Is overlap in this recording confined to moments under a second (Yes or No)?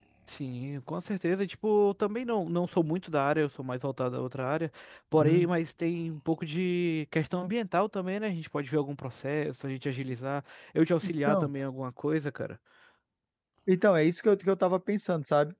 Yes